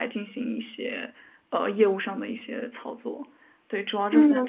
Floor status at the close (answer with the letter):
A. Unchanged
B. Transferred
B